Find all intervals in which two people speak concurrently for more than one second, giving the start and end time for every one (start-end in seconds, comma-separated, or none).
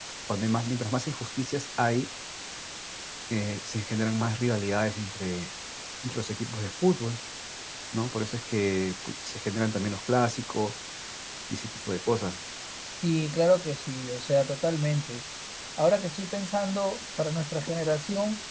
none